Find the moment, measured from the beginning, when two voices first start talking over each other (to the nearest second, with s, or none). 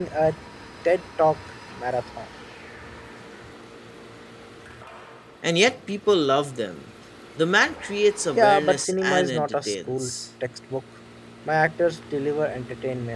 8 s